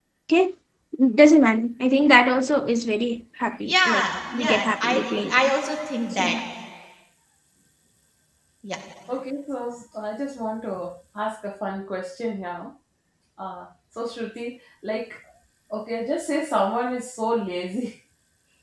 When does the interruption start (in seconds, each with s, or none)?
3.7 s